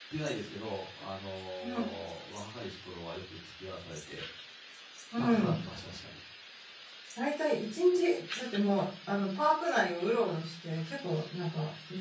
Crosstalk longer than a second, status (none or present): none